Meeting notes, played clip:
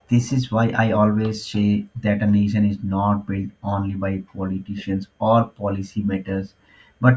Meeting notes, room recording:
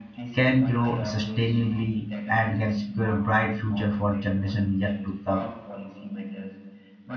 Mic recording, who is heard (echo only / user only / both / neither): both